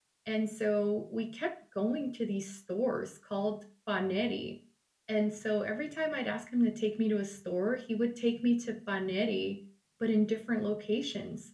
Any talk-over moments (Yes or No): No